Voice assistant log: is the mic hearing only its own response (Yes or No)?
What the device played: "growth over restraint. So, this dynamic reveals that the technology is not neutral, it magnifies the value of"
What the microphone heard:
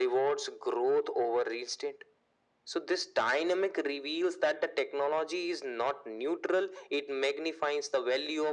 Yes